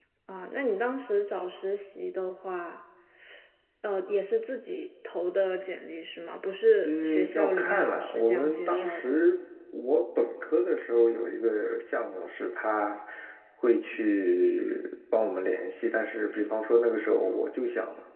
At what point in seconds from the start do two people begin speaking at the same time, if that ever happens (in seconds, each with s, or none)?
6.8 s